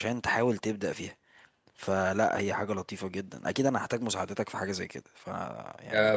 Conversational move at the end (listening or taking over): taking over